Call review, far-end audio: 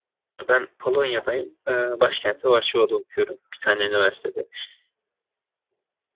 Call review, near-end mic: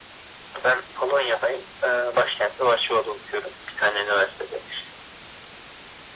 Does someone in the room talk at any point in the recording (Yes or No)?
No